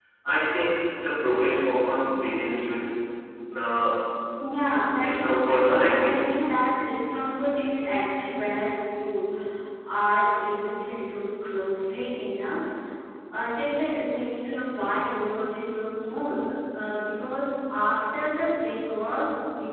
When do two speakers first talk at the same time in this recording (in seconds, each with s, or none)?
5.0 s